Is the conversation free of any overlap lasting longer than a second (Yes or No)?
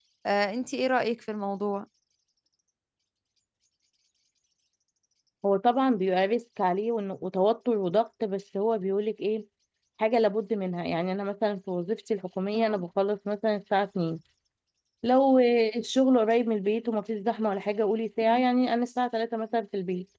Yes